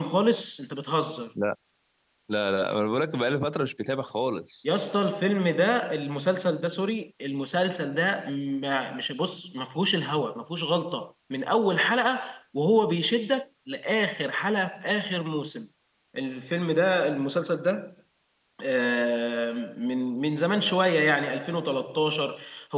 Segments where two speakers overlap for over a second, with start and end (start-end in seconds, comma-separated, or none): none